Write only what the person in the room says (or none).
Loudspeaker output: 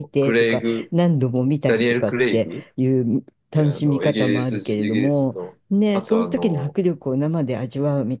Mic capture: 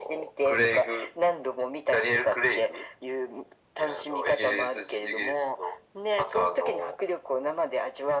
none